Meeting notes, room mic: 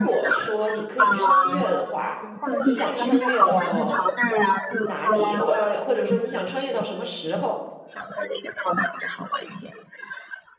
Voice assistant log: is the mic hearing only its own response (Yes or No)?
No